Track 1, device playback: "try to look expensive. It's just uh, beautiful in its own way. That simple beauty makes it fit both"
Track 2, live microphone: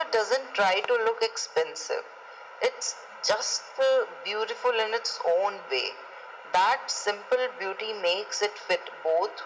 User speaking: No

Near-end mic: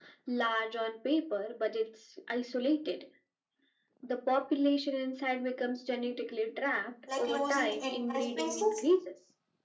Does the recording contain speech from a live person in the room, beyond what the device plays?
Yes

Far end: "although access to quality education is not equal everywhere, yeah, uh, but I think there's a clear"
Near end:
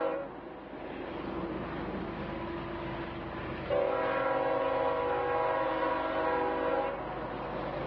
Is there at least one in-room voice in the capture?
No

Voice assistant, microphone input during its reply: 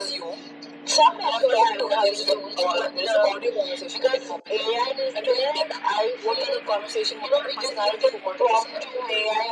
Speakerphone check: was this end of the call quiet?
Yes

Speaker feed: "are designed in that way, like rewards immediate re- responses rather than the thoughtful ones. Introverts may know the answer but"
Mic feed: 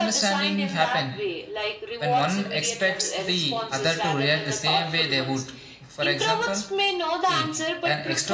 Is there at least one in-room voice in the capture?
Yes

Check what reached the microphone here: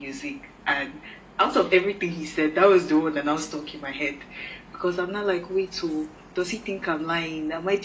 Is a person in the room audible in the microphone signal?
No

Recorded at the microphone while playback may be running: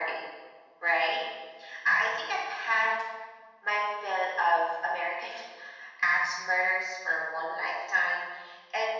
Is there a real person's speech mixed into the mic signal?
No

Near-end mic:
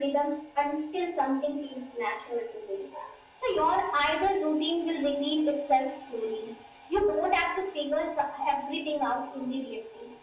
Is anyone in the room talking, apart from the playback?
No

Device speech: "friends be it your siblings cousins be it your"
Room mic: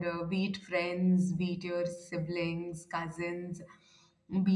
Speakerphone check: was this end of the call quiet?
Yes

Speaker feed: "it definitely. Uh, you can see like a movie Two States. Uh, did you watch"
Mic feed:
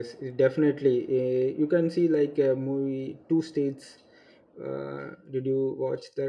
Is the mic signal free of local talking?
Yes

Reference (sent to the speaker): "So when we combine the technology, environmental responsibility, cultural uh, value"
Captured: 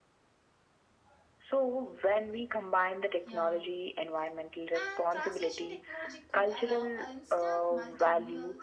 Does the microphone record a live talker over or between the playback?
Yes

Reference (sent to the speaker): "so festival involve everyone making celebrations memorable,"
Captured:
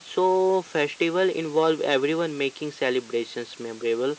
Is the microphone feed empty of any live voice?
Yes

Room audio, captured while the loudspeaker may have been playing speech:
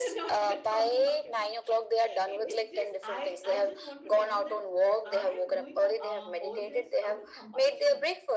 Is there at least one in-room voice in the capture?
Yes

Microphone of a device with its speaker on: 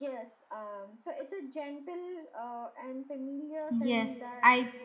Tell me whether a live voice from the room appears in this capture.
Yes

